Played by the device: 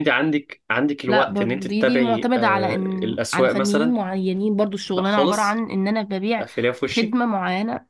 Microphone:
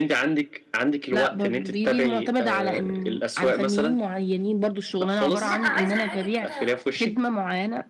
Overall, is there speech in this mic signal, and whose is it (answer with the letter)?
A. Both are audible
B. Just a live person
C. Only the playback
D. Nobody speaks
A